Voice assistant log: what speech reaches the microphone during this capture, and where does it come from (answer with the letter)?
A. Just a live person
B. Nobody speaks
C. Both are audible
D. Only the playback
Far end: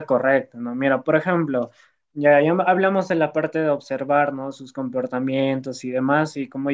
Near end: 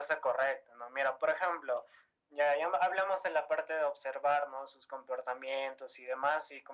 D